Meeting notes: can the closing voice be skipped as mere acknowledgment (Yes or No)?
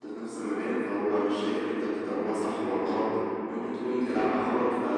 Yes